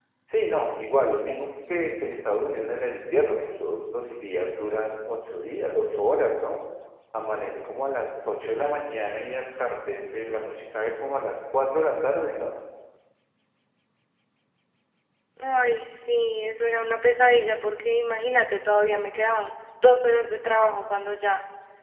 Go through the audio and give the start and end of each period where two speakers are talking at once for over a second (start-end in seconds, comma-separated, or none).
none